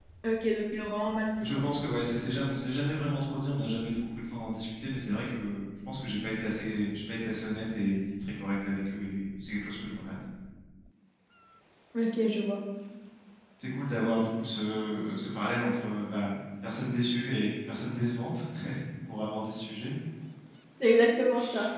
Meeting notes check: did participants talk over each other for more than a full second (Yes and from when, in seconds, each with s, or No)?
No